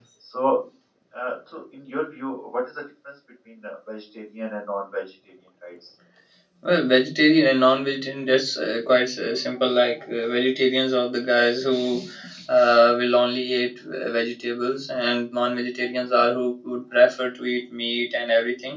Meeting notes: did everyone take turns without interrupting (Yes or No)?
Yes